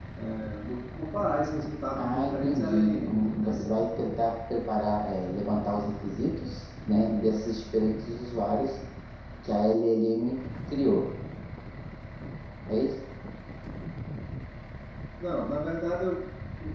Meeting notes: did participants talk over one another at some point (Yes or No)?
Yes